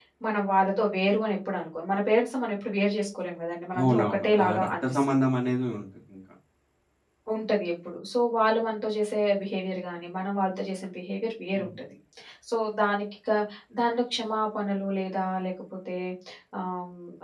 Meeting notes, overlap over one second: present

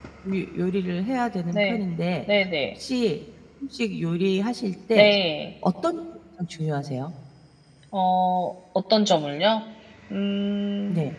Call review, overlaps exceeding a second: none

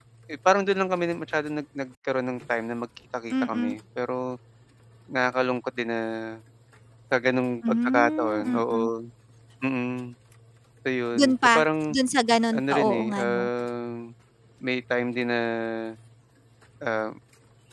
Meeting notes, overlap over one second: present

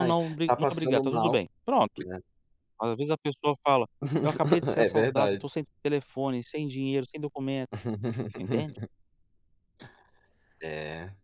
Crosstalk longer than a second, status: present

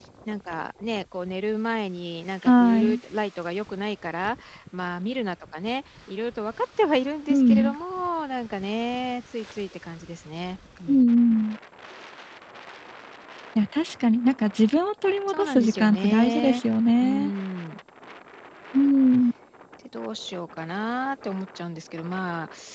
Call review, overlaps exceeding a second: present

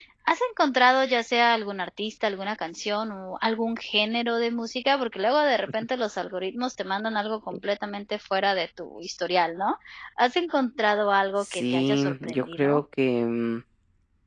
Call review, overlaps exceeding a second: present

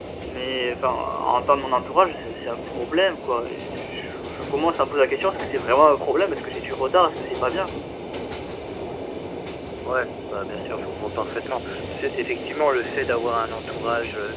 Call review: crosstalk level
none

